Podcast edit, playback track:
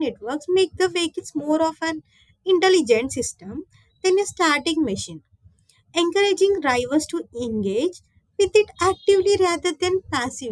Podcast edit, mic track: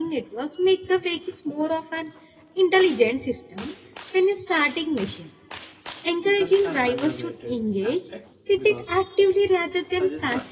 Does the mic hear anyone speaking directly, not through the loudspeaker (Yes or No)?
Yes